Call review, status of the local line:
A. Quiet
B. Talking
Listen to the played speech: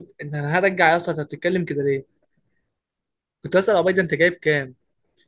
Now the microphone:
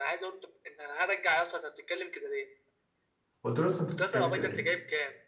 B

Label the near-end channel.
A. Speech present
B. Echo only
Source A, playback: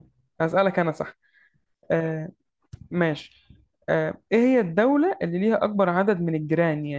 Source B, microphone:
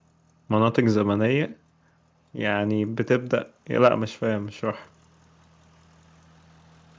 A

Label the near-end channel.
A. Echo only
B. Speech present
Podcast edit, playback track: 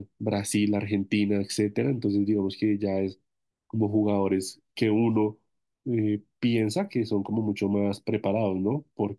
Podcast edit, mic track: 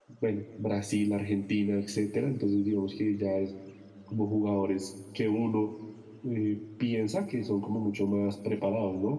A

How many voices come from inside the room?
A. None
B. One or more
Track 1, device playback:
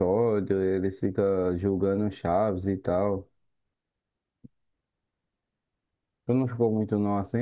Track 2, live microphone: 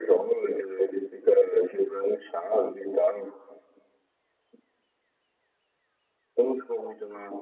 A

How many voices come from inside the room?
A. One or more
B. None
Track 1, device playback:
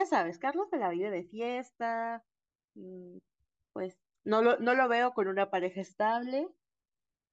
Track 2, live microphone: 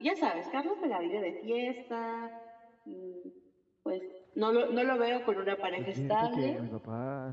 A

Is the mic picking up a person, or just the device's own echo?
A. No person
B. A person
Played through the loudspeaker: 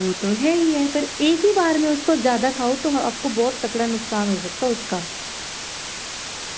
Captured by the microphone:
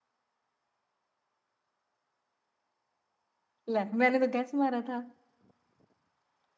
B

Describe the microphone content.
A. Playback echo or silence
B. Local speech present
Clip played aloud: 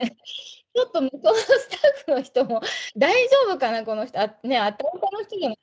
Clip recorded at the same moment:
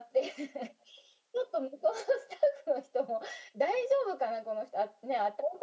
A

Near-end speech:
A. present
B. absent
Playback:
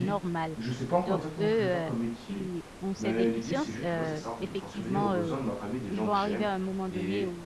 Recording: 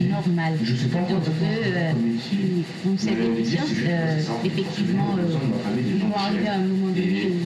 B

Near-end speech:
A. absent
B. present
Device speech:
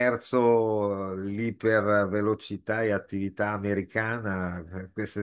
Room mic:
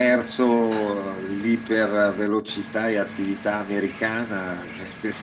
A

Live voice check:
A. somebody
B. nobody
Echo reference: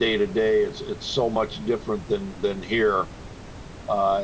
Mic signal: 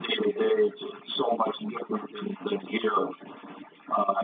B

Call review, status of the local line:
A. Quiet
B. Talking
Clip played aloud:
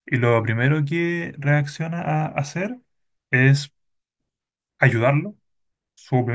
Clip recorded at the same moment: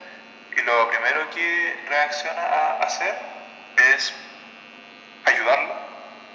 A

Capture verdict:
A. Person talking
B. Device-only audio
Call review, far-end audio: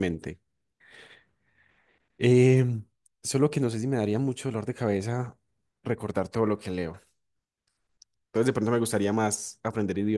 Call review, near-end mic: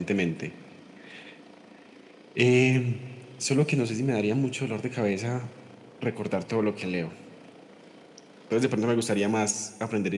B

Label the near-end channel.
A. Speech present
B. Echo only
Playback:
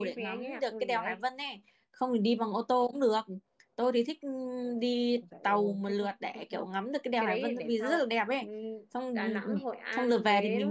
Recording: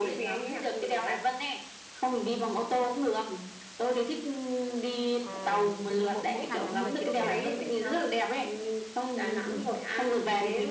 A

